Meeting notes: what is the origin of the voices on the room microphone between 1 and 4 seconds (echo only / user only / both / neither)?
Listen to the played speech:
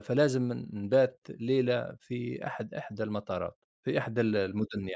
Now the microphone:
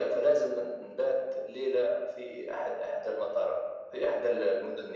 echo only